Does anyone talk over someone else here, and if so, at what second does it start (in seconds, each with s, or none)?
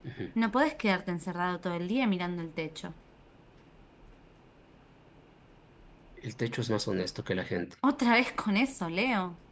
none